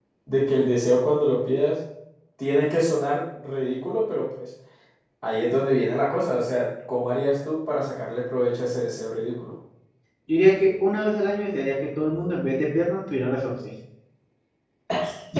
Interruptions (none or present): none